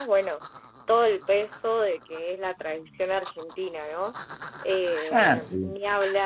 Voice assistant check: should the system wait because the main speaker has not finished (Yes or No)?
Yes